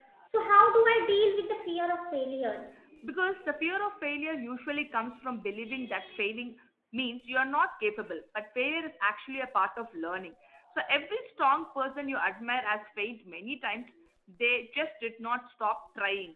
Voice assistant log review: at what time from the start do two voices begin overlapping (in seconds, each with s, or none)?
none